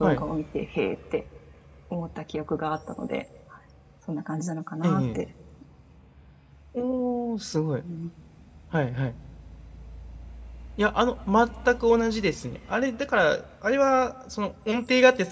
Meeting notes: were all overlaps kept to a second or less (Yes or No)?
Yes